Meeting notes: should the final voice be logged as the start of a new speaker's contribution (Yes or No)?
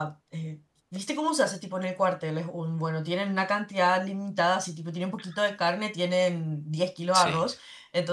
No